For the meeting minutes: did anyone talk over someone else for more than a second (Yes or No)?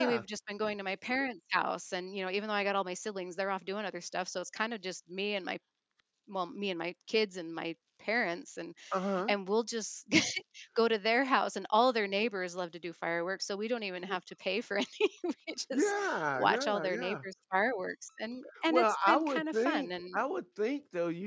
Yes